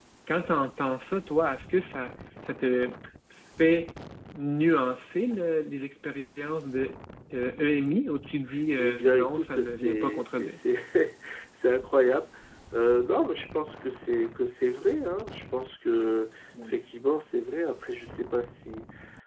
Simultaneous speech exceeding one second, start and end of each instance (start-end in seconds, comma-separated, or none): 8.8-10.6